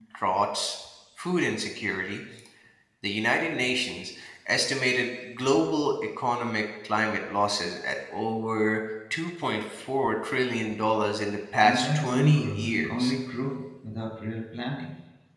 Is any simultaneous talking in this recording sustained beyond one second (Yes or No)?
Yes